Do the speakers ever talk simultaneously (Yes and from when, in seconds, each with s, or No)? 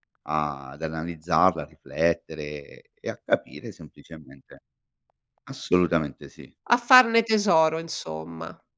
No